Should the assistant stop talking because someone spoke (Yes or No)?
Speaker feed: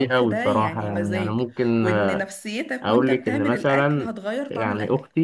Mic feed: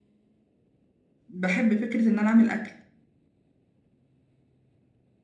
Yes